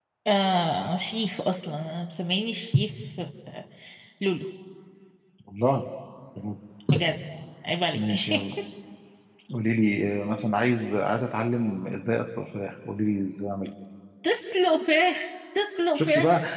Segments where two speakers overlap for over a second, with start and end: none

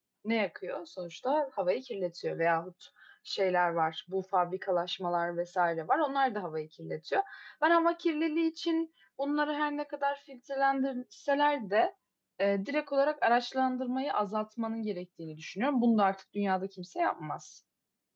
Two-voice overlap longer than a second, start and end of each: none

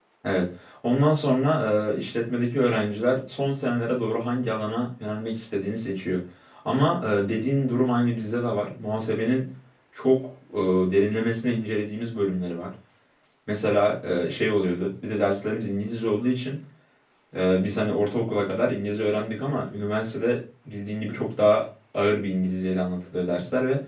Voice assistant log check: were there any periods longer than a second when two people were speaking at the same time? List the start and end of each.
none

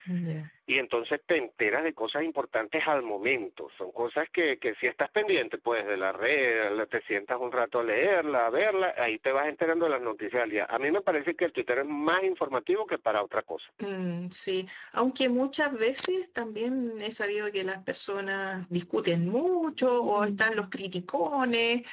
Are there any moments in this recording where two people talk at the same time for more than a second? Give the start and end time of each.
none

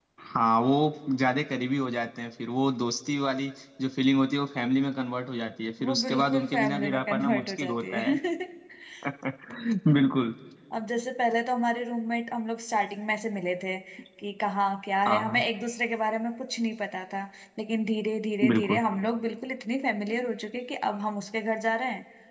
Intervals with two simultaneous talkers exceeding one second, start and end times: 5.8-8.1

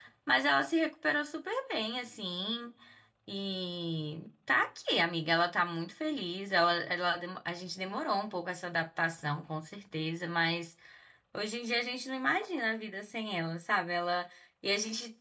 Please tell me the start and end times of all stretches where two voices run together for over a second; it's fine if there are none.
none

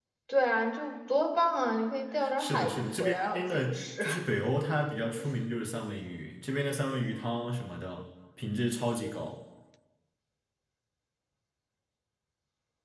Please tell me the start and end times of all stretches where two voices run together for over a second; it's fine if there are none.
2.4-4.0

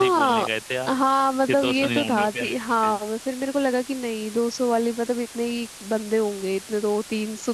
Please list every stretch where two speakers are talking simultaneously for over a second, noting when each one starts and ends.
1.4-2.9

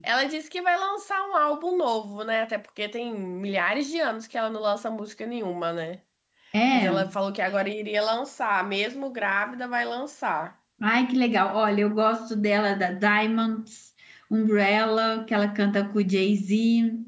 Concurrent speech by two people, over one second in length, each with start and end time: none

